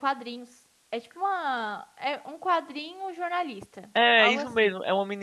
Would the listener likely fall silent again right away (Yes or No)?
No